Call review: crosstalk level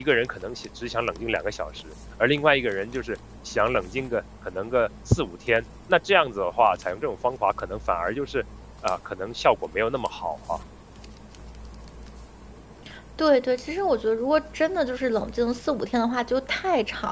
none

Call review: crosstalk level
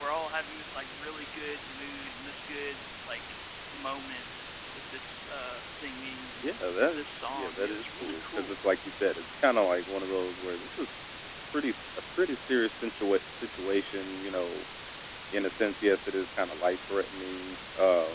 present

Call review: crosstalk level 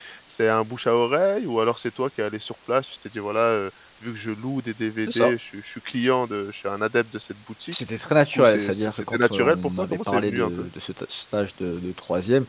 present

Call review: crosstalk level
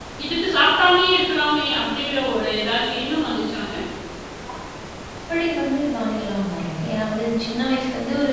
none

